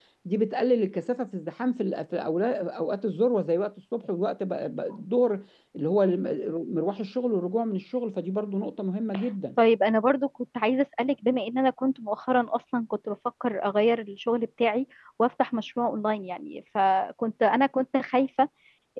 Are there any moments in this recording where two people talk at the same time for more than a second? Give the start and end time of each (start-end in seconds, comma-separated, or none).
none